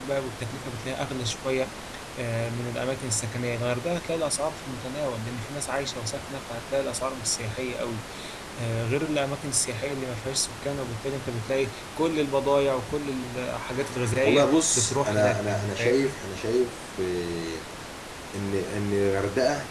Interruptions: present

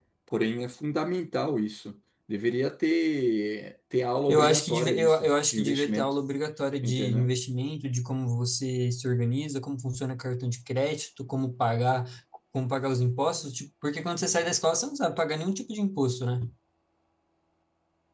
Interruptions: present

